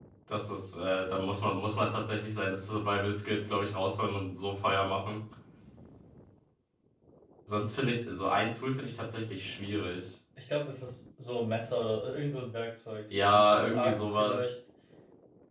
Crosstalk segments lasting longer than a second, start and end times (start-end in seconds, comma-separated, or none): 13.3-14.6